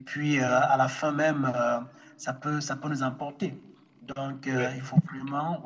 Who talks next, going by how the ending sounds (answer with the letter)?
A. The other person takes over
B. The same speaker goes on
B